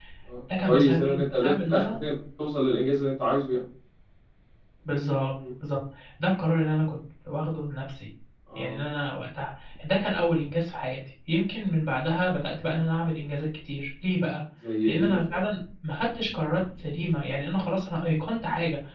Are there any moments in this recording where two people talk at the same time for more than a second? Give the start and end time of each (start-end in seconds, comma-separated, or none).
0.7-1.9